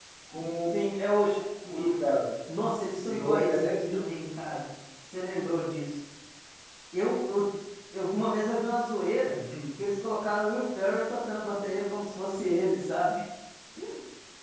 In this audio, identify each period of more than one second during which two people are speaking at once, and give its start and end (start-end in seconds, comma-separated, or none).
3.0-4.6